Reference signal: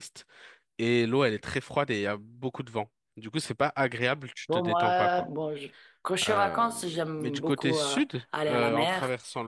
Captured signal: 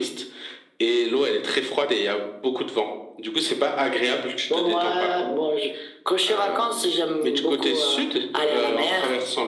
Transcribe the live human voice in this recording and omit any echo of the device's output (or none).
none